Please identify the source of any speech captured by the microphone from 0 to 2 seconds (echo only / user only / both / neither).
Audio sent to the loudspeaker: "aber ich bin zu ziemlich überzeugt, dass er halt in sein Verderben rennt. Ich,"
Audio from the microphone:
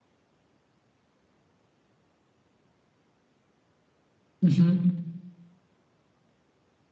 neither